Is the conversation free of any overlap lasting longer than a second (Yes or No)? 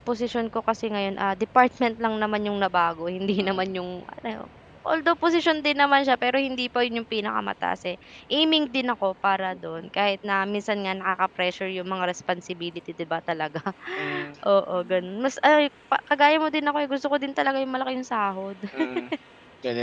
Yes